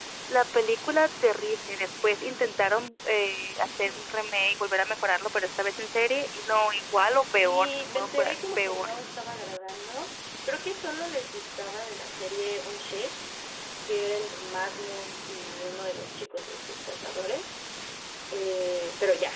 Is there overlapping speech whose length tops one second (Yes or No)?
Yes